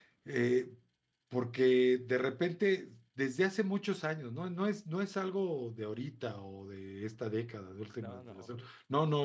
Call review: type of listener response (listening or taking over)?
listening